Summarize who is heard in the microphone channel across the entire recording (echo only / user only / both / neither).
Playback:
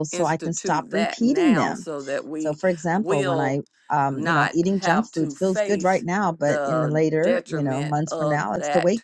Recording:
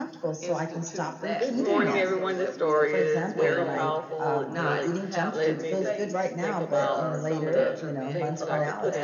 both